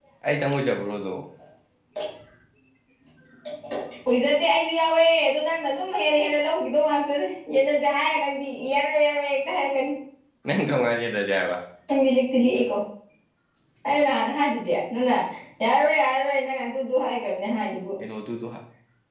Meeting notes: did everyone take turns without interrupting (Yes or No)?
Yes